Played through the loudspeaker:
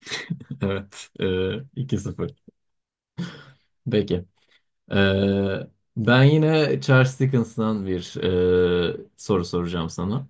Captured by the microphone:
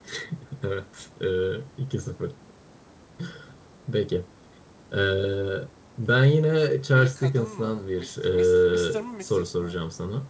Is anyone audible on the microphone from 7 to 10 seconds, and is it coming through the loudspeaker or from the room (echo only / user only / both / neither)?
both